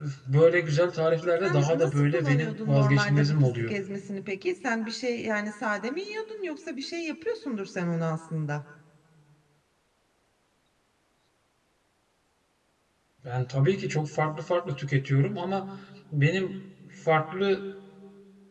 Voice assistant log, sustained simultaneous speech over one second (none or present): present